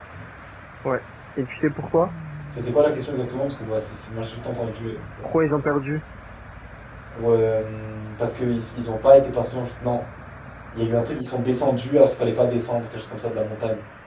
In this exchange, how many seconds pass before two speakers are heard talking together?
none

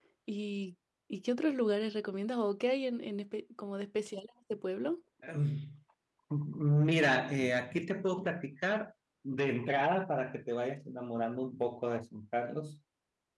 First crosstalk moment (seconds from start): none

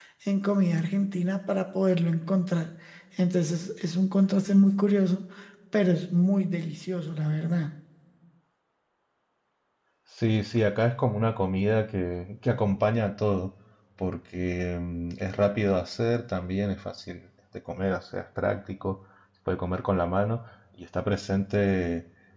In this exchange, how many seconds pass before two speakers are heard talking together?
none

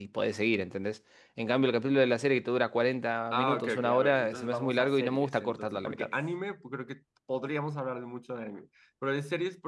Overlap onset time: 3.3 s

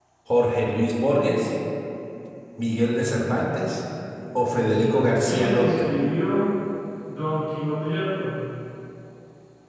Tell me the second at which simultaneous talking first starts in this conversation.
4.5 s

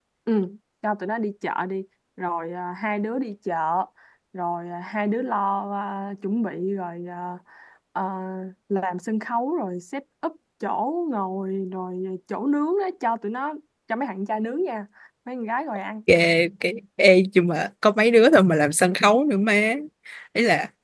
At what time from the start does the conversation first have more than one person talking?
none

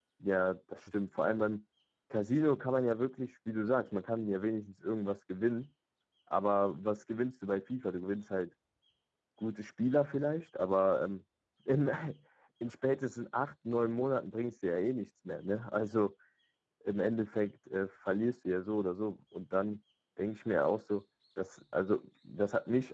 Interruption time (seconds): none

